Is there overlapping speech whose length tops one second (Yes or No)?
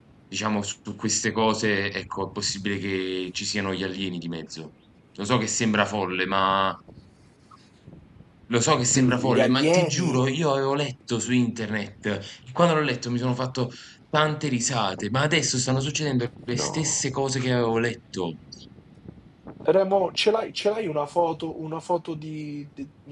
Yes